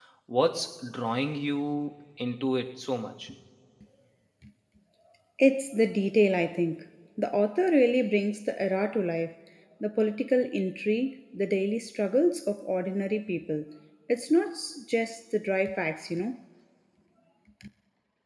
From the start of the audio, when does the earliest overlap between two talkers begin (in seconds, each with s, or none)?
none